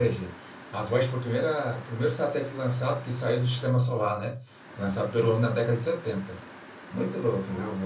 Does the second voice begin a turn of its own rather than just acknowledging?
Yes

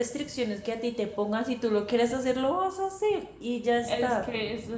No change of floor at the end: No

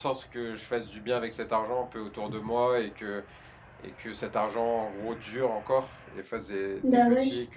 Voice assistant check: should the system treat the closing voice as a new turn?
No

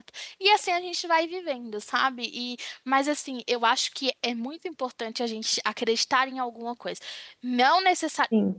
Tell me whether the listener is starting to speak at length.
No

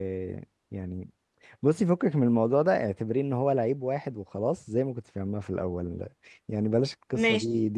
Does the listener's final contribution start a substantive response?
No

